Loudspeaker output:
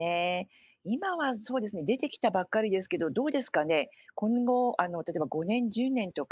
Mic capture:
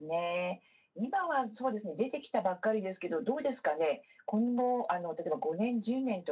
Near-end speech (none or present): none